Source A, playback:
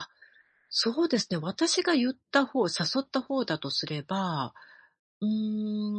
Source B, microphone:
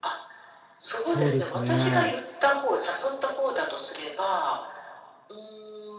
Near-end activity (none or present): present